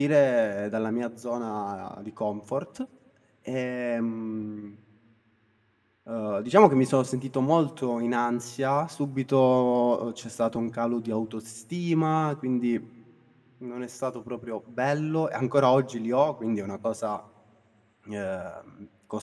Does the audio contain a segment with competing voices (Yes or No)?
No